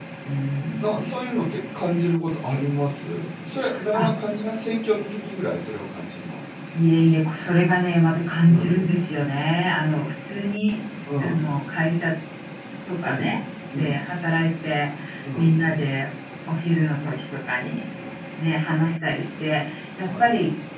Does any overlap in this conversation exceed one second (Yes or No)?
No